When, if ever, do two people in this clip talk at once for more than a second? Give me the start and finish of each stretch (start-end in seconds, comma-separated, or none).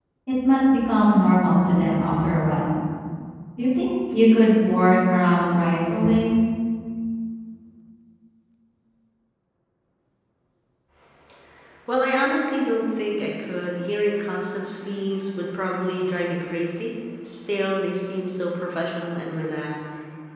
none